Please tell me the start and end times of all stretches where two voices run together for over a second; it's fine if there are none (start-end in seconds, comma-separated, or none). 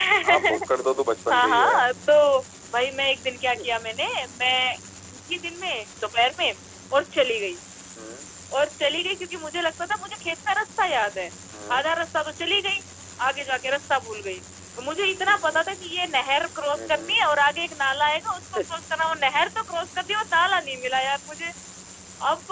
none